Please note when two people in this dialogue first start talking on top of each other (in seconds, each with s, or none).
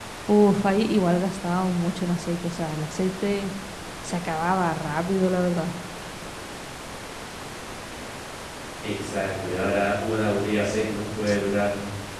none